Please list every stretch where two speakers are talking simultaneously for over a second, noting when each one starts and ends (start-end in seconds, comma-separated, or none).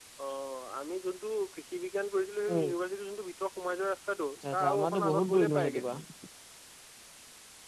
4.5-5.8